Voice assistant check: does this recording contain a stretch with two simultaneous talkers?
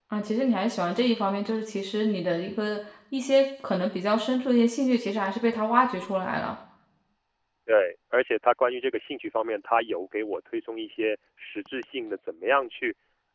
No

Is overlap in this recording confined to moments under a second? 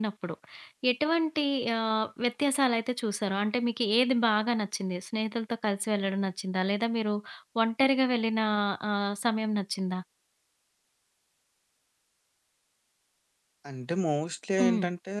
Yes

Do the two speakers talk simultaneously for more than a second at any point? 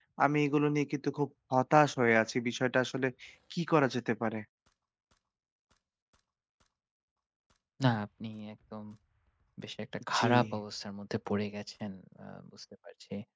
No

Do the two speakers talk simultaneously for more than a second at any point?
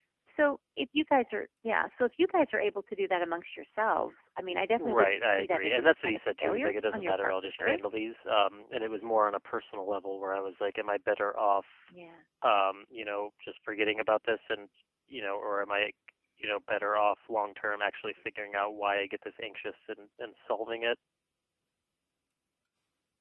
Yes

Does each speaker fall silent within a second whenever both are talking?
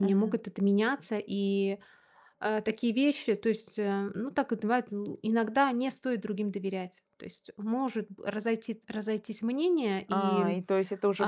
Yes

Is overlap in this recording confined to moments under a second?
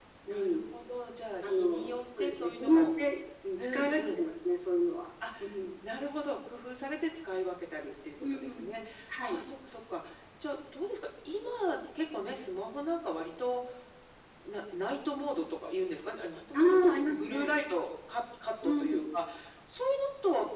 No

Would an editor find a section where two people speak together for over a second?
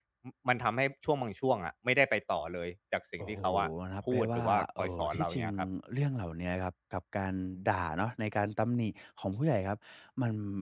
Yes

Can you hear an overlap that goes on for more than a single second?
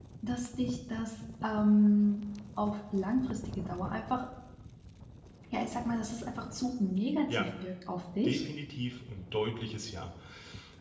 No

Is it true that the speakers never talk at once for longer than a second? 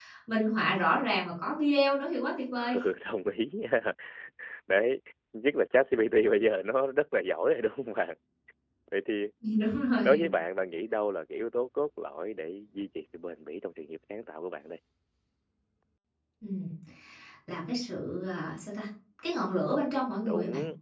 Yes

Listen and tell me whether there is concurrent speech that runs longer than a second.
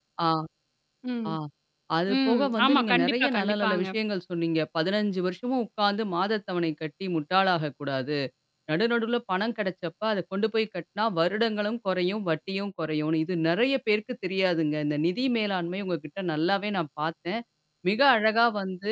Yes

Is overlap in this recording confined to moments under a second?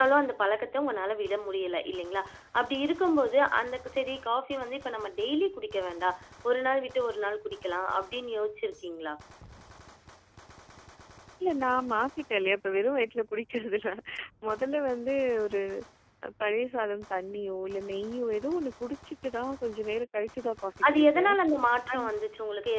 Yes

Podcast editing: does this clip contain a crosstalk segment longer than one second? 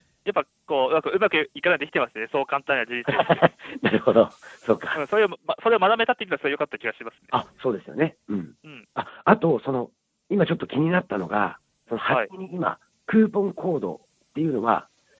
No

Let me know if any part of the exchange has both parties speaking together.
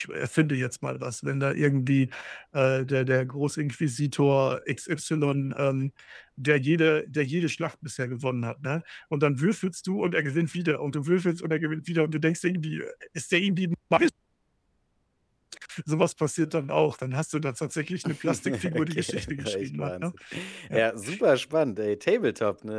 Yes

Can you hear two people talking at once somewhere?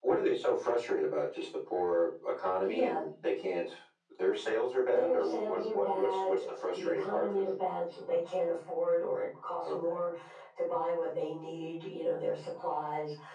Yes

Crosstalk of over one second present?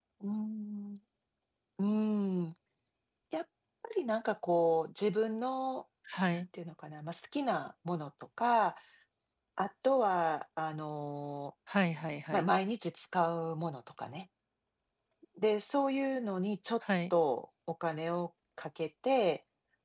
No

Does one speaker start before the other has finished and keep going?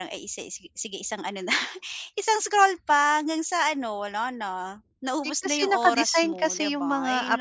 Yes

